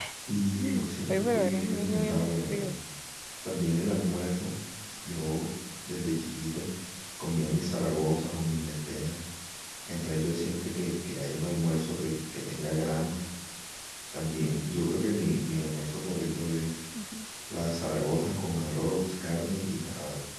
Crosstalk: present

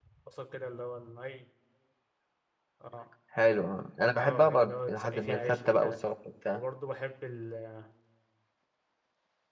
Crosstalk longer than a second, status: present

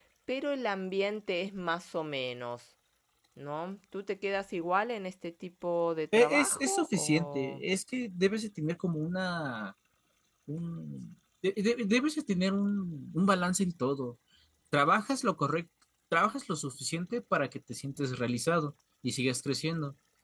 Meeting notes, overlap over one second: present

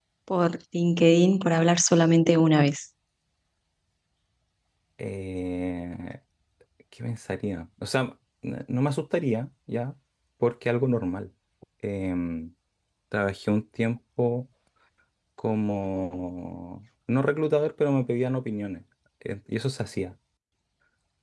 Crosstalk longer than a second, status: none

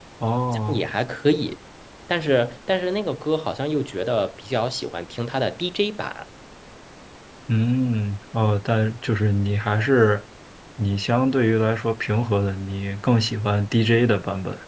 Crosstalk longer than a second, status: none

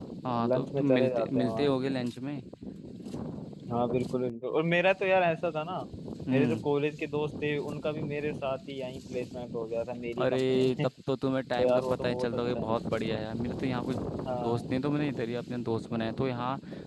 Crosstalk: present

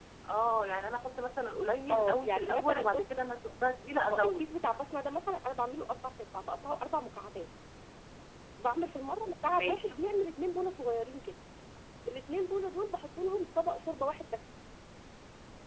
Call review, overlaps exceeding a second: present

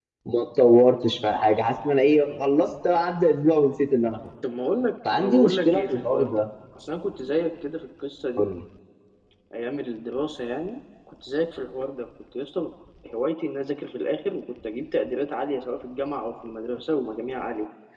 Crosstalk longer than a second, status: present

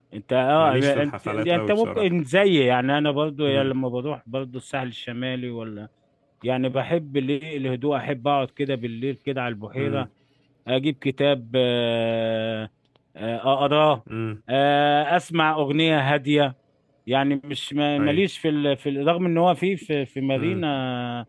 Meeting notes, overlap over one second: present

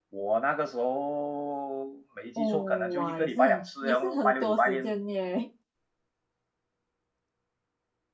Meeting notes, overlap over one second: present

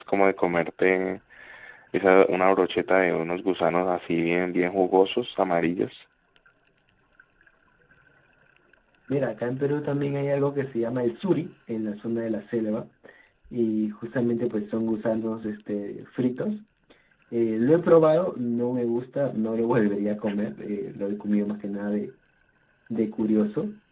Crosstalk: none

